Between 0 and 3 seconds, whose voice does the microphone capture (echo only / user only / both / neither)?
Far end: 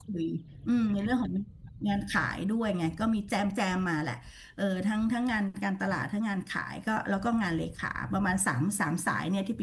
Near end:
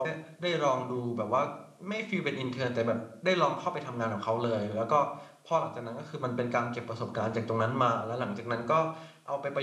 user only